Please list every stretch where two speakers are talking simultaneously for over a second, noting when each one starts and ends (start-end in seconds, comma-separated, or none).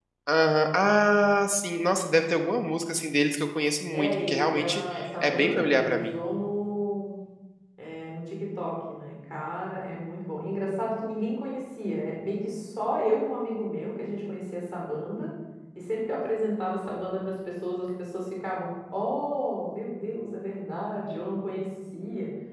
3.9-6.1